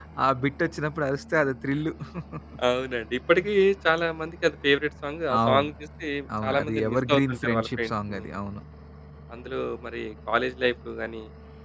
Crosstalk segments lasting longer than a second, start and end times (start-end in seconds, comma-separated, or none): 6.4-8.3